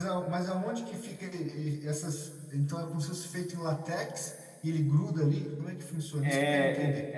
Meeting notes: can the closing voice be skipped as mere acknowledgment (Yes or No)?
No